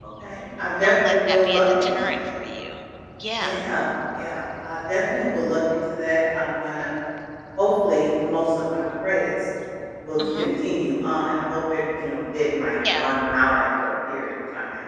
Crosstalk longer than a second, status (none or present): present